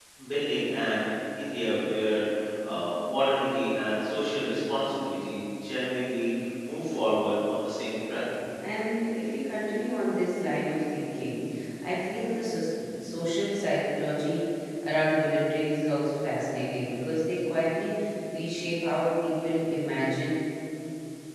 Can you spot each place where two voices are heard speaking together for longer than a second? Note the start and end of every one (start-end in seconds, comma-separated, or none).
none